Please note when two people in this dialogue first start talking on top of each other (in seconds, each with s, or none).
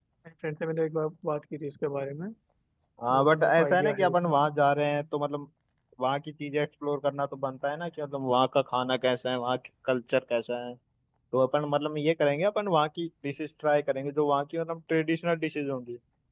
3.1 s